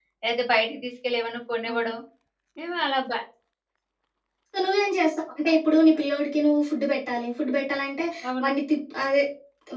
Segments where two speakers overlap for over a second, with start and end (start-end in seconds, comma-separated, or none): none